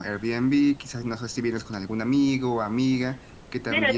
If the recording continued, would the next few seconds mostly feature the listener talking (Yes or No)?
Yes